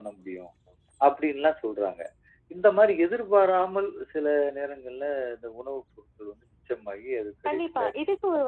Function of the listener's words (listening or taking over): taking over